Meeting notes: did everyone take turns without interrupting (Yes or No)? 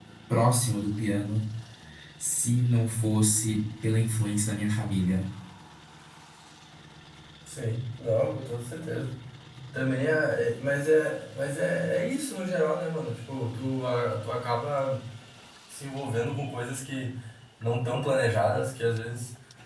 Yes